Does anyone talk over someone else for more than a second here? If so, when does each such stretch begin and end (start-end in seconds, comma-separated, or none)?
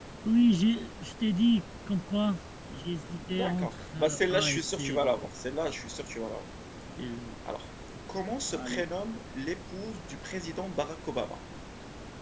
3.3-5.2